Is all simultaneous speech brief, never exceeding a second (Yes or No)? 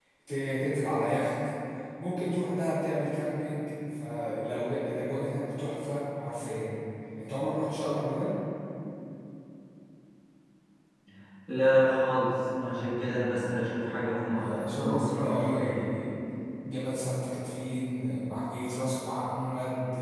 No